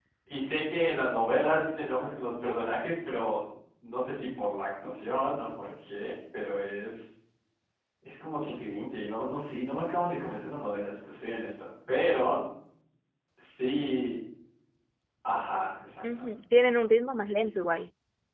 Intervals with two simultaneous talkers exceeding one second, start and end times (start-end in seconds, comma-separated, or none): none